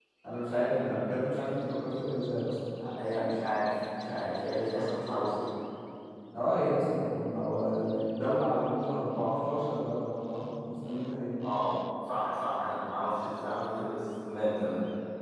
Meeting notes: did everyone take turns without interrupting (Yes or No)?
Yes